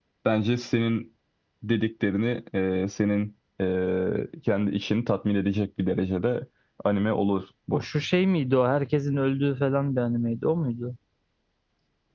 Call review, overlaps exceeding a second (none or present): none